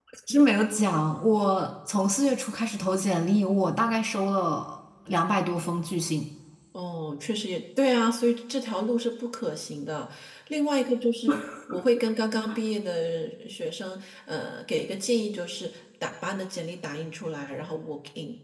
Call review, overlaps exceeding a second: none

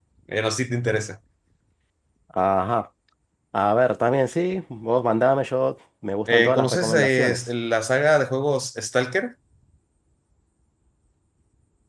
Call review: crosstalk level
present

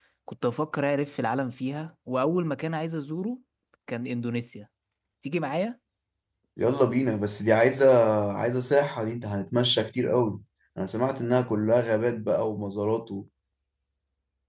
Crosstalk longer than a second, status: none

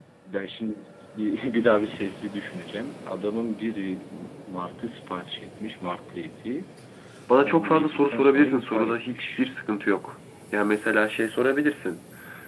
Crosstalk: present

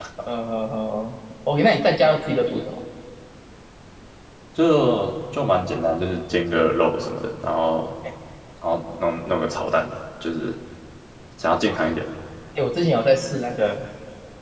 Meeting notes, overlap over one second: none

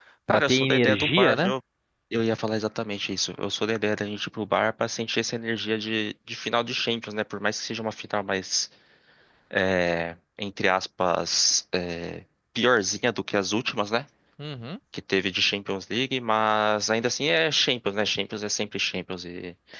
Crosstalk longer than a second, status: present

